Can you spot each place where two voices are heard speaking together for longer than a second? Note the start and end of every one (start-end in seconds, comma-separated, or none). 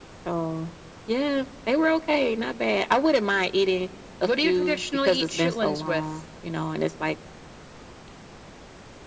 4.4-6.0